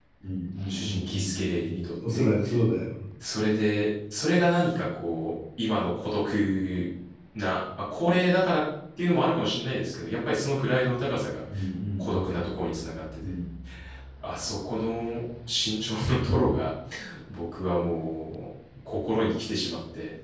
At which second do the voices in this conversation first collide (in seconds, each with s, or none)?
0.7 s